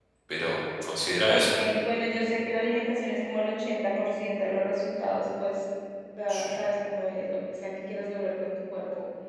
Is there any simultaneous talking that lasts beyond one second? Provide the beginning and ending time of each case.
none

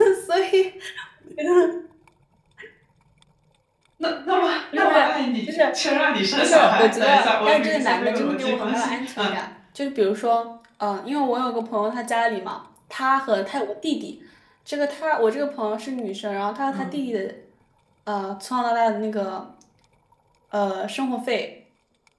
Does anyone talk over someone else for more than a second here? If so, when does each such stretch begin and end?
6.4-9.3

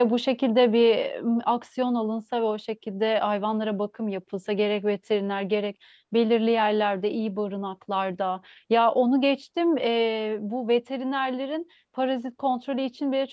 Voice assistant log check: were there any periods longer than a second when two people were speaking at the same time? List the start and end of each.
none

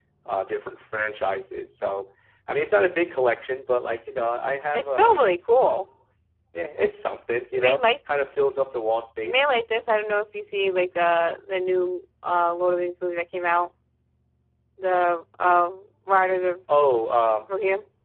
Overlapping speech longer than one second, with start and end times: none

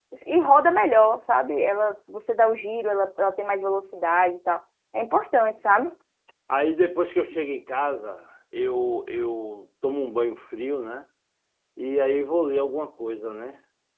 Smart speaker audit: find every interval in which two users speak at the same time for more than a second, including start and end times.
none

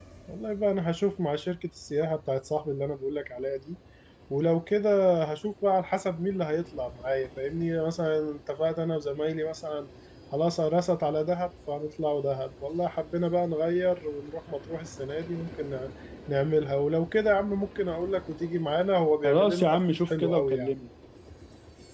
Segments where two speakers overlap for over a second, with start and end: 19.2-20.7

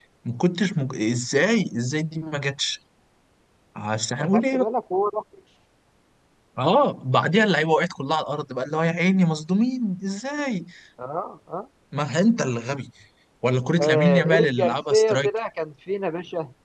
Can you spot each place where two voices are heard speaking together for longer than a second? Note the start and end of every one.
13.8-15.3

